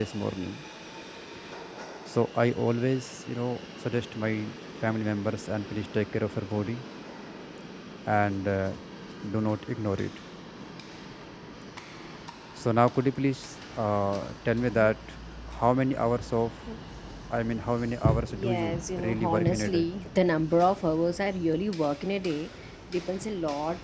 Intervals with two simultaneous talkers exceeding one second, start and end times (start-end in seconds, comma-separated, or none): 18.3-19.9